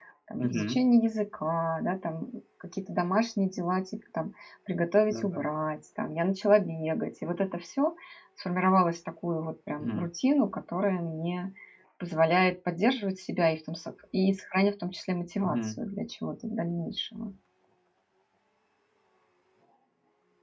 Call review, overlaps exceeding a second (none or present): none